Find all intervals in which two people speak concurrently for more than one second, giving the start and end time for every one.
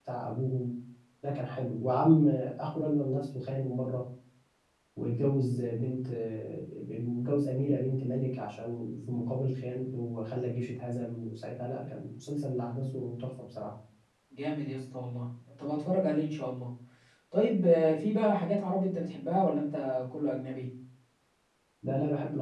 none

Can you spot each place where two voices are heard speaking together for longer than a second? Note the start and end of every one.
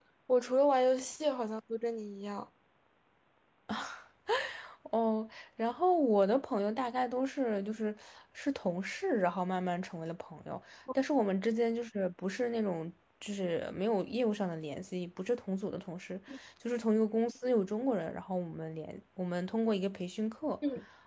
none

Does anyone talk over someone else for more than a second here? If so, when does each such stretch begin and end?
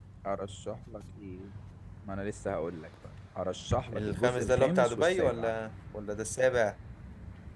4.0-5.5

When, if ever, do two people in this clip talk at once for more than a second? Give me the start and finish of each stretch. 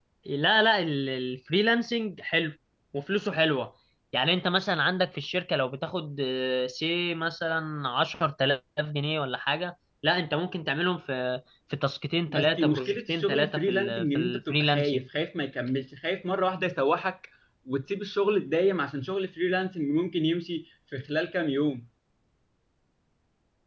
12.3-15.0

